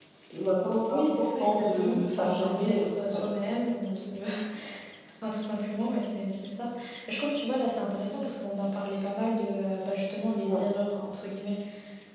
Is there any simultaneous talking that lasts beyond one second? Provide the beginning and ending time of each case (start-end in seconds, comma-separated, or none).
0.9-3.2